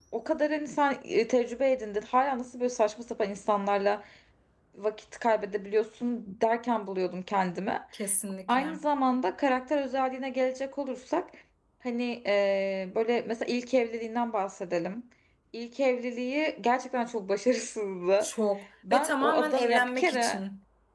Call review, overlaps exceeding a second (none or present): present